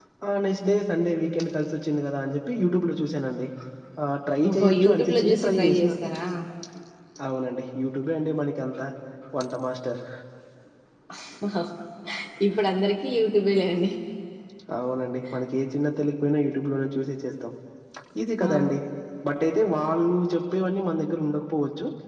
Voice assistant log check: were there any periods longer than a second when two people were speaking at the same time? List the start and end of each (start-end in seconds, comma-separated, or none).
4.5-5.9